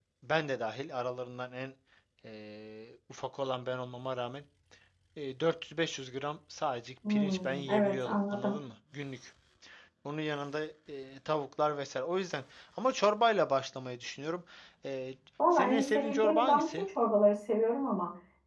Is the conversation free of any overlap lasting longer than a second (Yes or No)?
No